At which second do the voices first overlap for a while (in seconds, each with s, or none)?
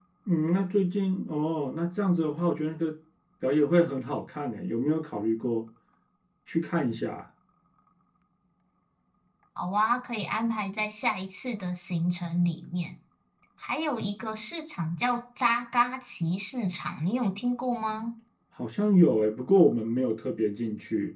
none